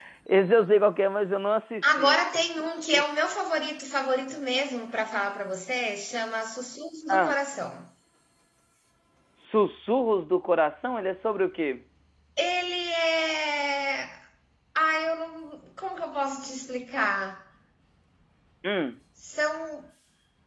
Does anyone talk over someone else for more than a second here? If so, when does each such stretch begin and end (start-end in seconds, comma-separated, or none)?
none